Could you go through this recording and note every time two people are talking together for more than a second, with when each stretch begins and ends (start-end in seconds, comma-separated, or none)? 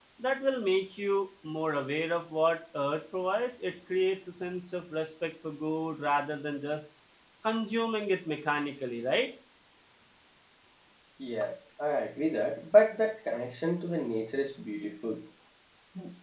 none